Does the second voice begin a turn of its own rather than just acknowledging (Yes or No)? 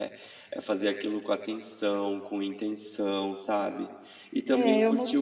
Yes